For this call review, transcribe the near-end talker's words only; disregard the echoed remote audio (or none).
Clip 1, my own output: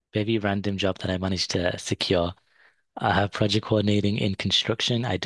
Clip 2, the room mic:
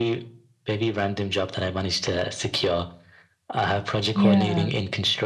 yeah.